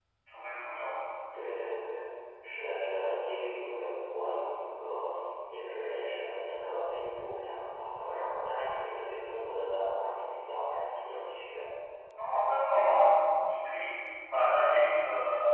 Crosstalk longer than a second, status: none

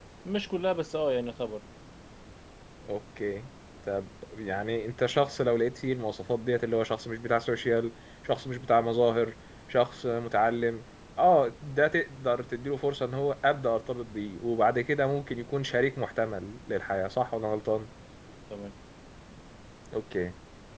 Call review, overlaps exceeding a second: none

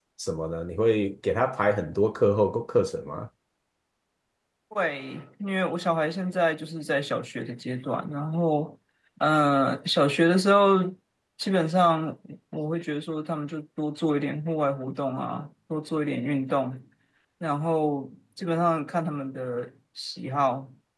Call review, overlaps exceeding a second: none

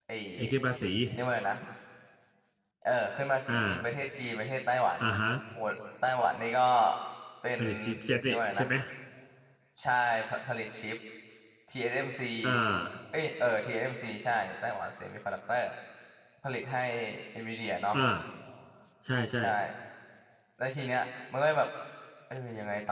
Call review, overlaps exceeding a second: none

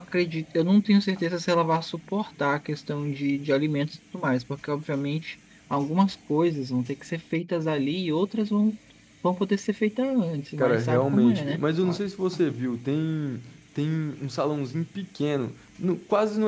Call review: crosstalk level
present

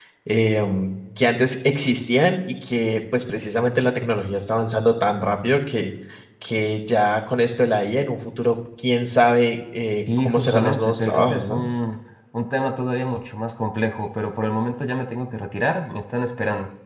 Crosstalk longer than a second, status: present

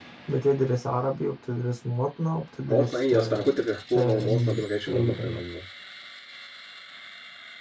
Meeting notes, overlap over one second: present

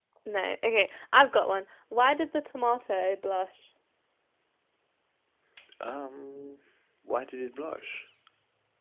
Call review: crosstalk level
none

